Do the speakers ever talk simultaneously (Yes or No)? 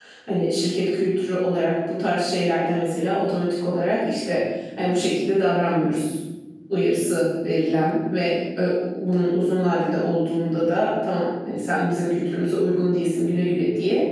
No